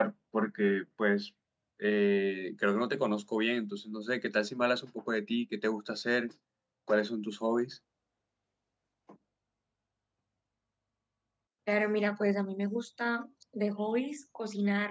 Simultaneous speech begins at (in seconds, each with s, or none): none